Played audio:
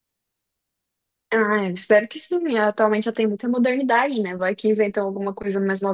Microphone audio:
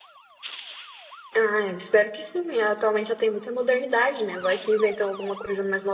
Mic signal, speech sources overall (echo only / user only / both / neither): echo only